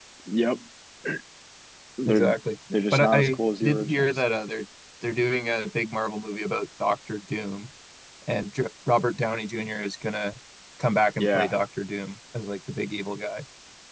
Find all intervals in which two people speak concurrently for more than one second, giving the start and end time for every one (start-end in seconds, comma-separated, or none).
2.9-4.2